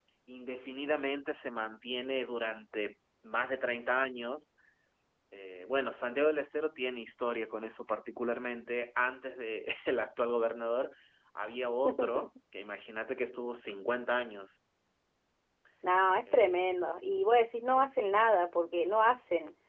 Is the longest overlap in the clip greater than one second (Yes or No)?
No